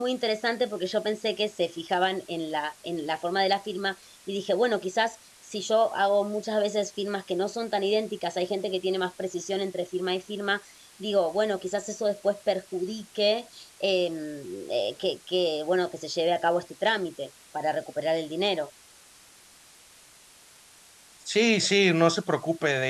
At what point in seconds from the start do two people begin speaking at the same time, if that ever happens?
none

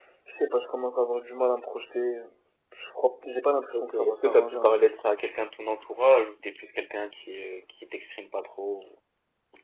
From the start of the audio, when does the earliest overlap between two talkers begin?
3.7 s

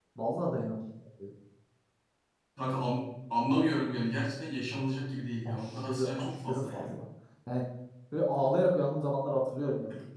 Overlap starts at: 5.4 s

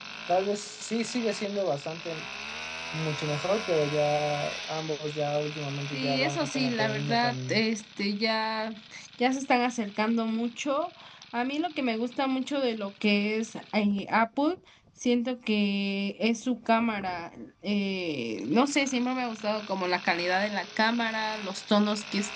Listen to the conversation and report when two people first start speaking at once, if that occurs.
5.9 s

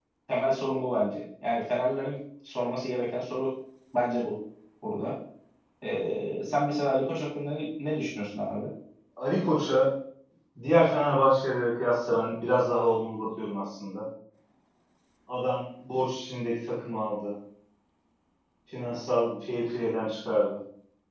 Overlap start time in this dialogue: none

